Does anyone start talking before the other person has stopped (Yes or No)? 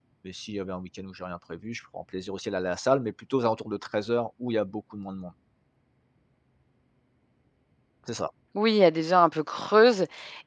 No